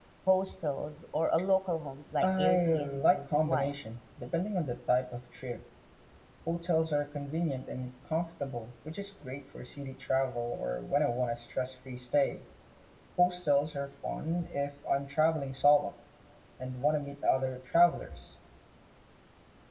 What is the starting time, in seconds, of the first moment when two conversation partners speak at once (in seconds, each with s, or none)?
2.2 s